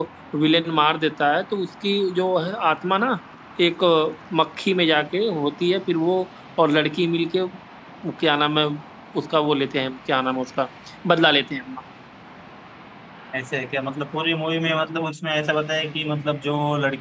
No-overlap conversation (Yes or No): Yes